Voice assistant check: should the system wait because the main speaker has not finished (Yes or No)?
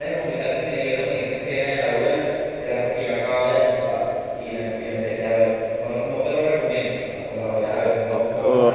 No